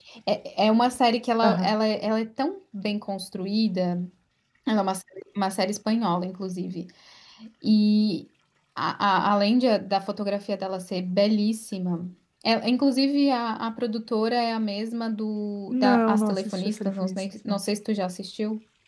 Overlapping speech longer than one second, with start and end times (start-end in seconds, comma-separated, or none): 15.7-17.6